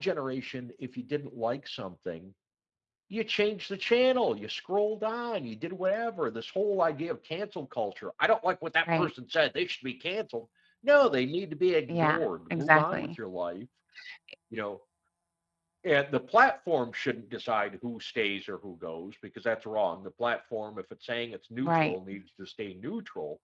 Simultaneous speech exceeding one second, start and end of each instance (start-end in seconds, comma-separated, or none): 11.9-13.1